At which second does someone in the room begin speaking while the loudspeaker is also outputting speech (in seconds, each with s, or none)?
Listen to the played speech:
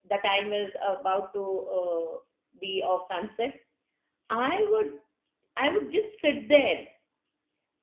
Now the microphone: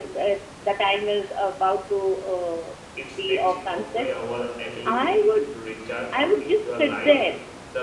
3.0 s